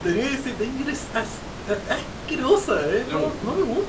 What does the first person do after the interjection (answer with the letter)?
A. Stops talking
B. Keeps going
A